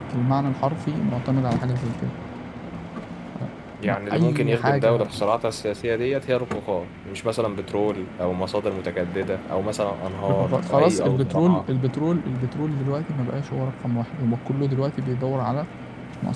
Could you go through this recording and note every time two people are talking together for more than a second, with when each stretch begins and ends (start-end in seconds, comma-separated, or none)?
3.8-5.1, 10.3-11.7